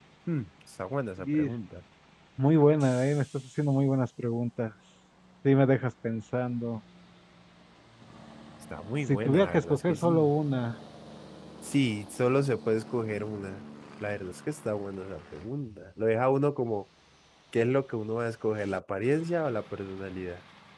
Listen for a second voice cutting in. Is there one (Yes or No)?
Yes